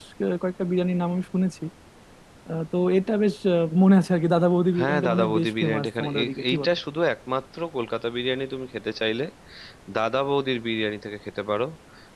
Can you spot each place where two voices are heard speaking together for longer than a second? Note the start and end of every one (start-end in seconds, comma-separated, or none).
4.8-6.7